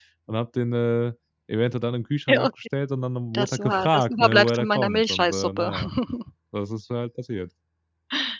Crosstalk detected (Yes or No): Yes